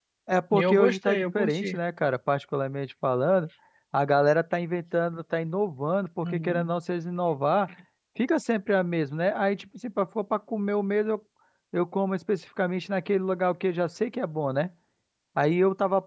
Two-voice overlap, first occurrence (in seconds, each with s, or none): 0.5 s